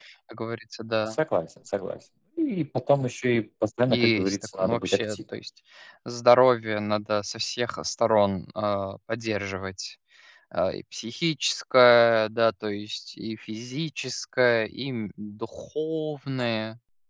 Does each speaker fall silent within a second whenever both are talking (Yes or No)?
No